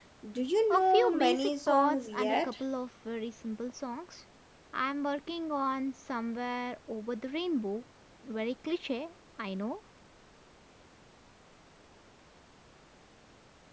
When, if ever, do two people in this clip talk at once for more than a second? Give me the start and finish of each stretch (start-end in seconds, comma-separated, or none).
0.7-2.5